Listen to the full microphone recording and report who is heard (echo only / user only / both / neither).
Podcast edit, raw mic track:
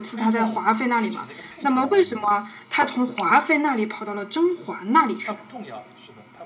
both